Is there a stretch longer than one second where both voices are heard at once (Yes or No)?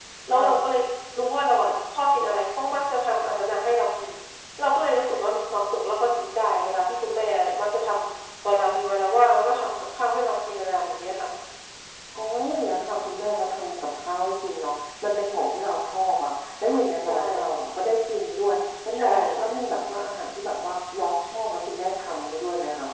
No